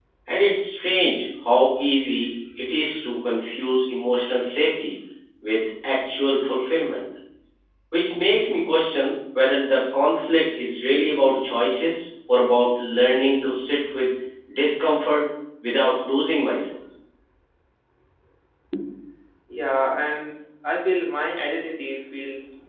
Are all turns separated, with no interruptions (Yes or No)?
Yes